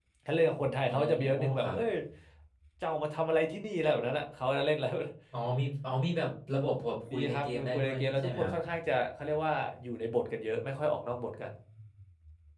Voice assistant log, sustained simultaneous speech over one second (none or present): present